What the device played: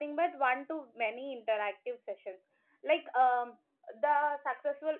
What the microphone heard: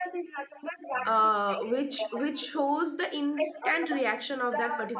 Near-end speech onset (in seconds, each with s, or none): 1.0 s